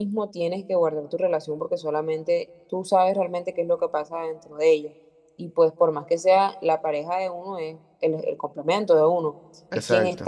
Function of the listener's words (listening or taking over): listening